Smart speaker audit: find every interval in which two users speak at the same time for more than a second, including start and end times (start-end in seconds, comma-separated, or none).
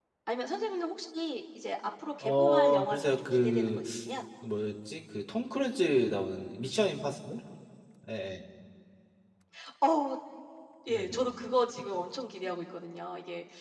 2.2-3.8